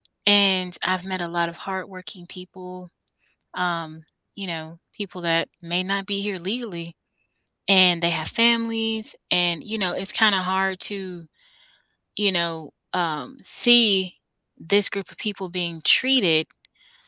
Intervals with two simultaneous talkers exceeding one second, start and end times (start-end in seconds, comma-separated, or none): none